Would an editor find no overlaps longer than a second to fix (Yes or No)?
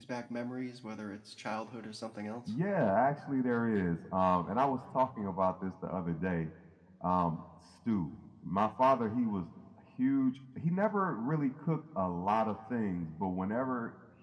Yes